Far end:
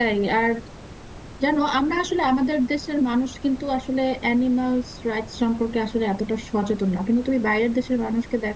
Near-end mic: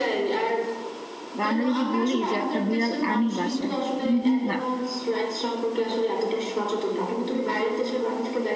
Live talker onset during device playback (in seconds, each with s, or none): 1.4 s